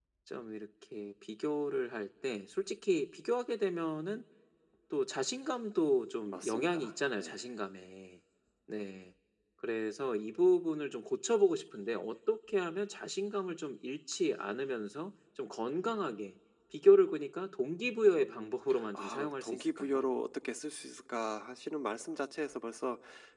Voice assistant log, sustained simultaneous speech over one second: present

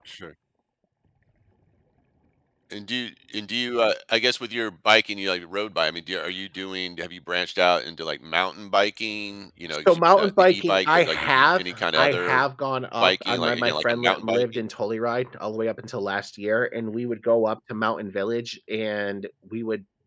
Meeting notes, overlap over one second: present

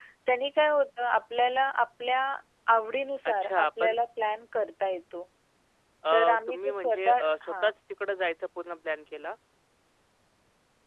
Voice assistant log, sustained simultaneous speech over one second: present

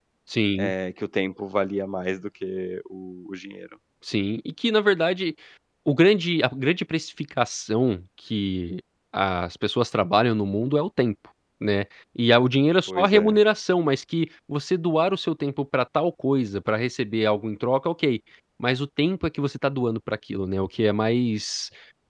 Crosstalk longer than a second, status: none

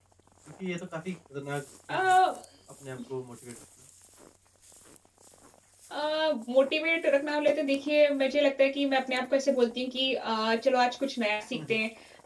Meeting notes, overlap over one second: none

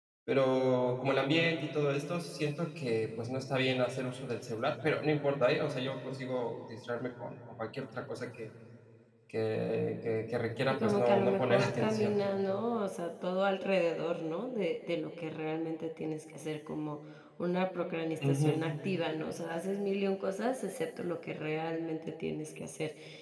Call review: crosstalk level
present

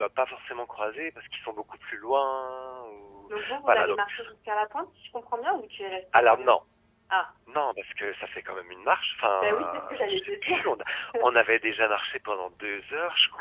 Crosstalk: present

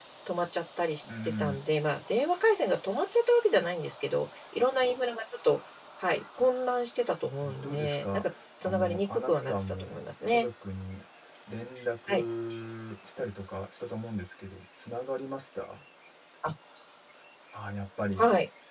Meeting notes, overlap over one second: present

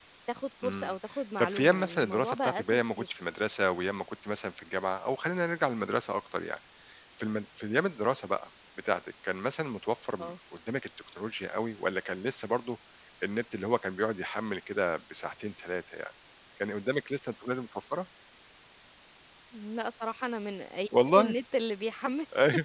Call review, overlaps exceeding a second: present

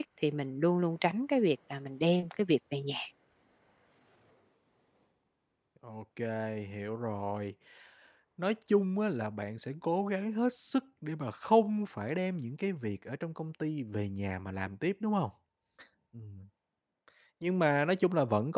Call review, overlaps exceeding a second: none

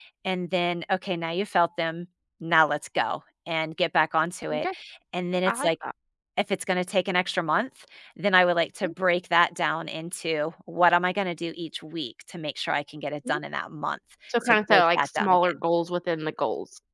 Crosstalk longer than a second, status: present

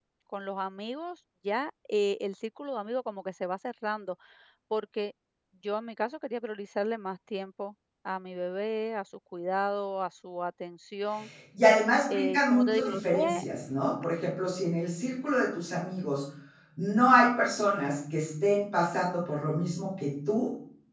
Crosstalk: present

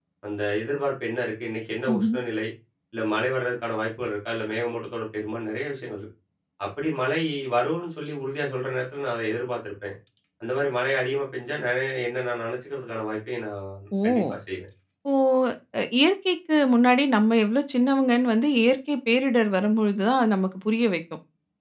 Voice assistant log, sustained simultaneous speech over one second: none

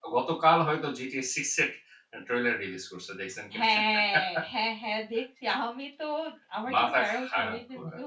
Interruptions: present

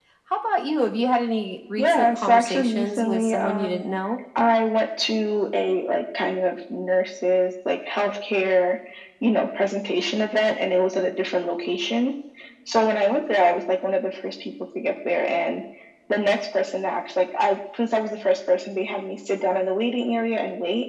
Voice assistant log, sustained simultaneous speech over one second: present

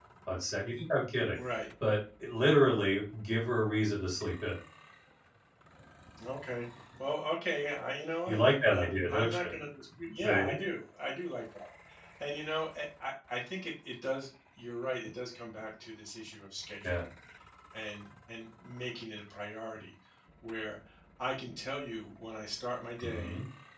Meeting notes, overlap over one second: present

